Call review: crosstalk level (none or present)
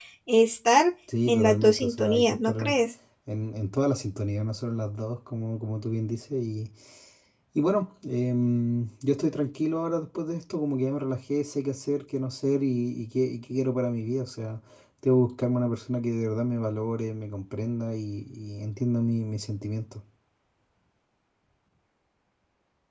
present